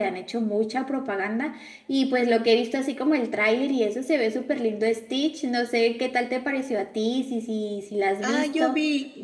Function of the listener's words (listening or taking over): taking over